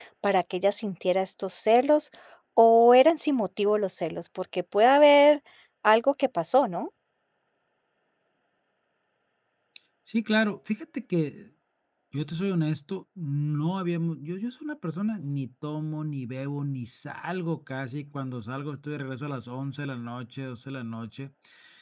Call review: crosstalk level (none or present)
none